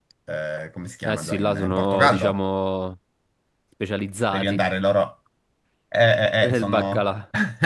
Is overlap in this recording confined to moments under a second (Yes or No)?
No